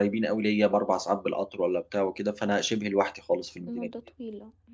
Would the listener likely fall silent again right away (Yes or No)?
No